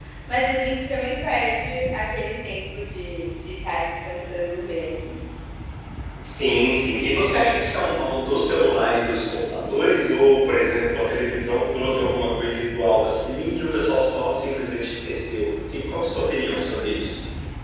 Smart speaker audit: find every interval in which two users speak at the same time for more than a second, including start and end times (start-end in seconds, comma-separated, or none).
none